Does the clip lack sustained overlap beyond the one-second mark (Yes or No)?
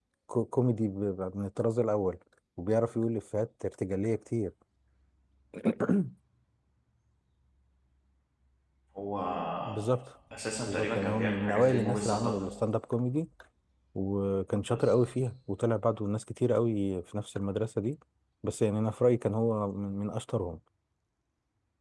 No